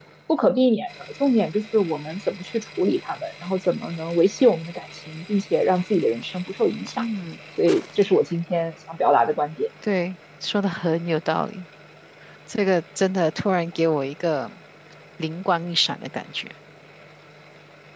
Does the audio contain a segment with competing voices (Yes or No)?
No